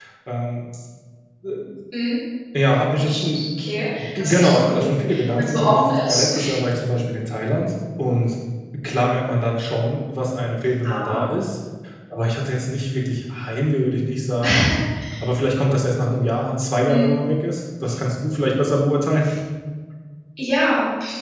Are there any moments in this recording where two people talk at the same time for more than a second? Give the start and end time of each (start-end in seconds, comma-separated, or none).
4.2-6.3